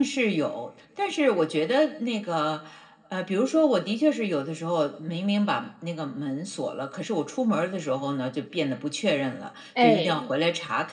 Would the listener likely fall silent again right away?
Yes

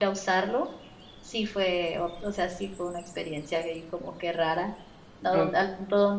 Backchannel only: Yes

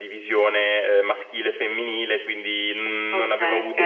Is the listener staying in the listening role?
Yes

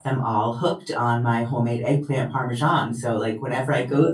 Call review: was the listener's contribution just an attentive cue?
Yes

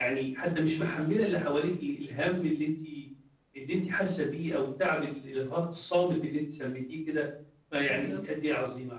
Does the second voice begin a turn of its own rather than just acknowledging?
No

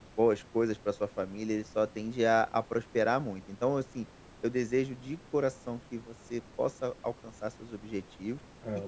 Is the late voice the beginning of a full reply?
No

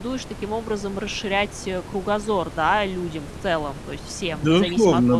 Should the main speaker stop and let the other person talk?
Yes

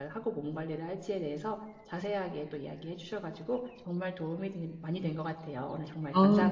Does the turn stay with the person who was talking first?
No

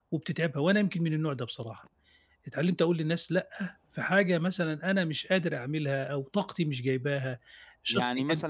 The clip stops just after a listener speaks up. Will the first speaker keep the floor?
No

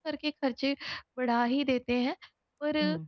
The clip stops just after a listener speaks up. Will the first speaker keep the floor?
Yes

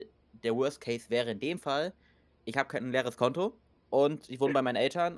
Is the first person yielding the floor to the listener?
No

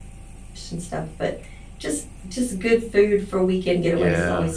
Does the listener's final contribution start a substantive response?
Yes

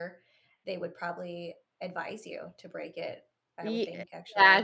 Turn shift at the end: Yes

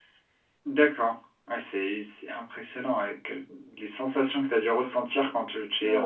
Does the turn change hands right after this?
Yes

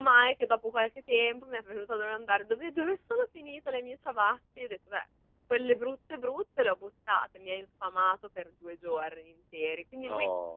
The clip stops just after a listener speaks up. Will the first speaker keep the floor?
Yes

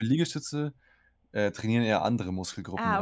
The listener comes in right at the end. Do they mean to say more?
Yes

